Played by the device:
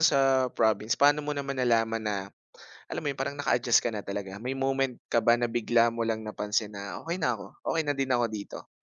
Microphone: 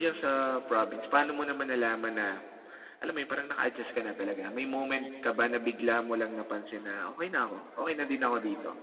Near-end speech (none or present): none